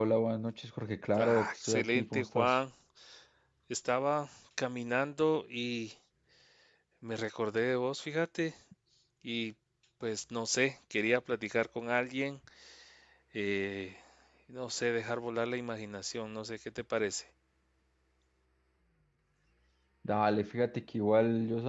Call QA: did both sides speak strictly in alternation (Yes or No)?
No